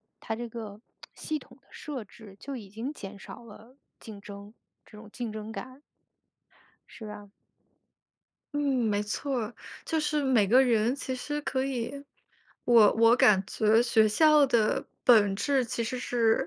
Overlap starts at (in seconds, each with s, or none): none